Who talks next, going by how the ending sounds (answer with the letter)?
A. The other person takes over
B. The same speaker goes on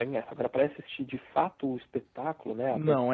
A